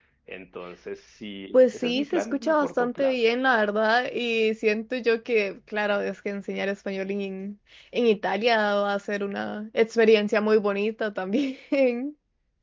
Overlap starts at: 2 s

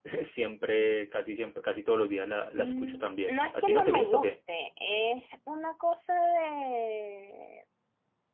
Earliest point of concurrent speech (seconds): 3 s

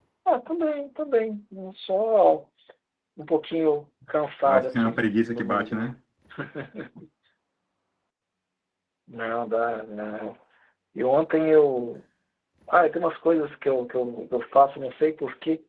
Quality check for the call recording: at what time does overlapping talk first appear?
4 s

